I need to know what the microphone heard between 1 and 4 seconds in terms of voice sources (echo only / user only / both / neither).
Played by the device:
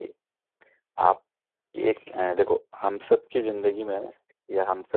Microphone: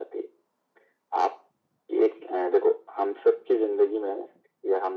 echo only